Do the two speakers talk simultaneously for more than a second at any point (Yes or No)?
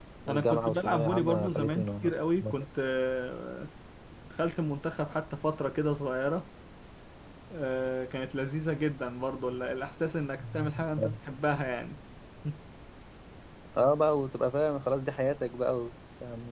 Yes